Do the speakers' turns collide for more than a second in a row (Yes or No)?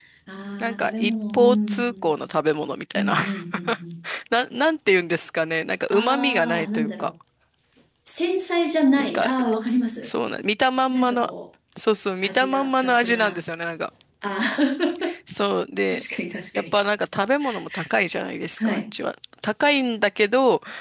Yes